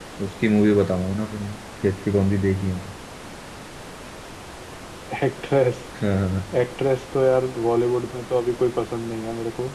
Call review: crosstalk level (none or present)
none